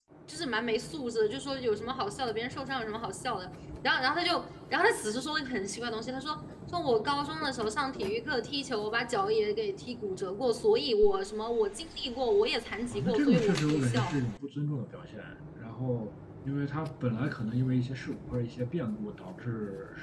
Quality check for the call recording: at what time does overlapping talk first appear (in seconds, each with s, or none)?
12.8 s